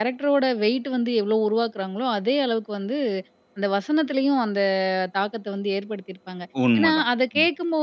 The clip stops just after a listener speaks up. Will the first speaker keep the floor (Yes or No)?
Yes